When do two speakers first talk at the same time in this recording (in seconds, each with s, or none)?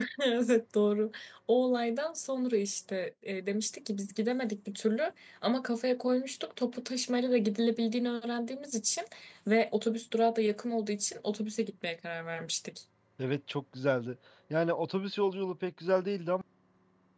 none